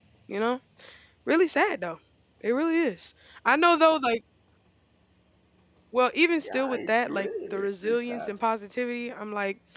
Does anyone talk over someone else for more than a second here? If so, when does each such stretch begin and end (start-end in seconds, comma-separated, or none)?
6.4-8.3